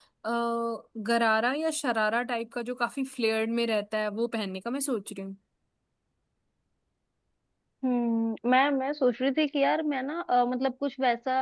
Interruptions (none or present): none